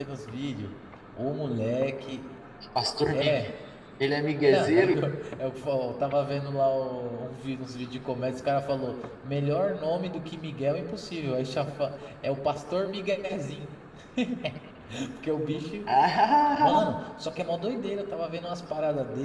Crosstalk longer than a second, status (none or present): none